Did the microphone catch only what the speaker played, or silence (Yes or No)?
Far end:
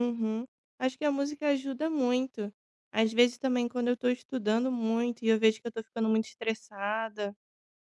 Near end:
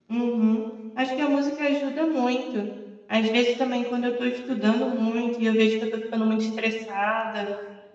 Yes